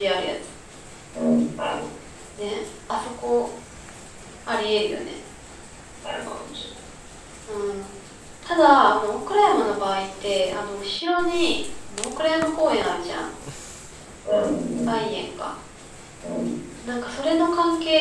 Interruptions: none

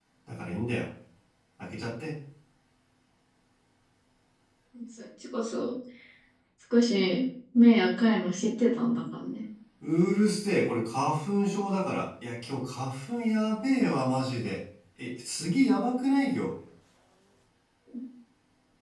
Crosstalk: none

